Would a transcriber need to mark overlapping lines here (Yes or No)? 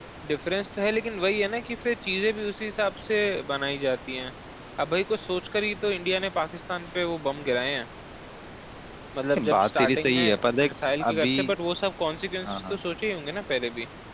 Yes